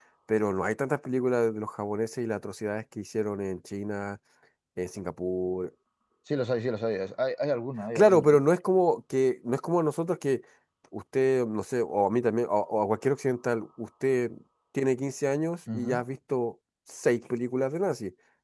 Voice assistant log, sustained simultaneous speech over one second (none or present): none